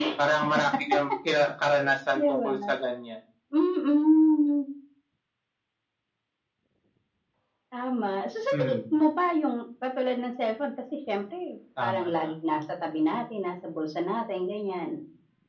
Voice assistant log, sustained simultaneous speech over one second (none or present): none